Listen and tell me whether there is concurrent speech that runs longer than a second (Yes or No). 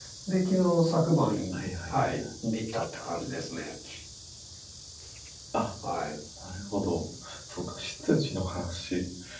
No